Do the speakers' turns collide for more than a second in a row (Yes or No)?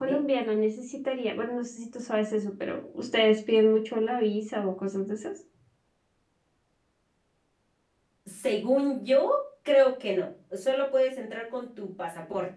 No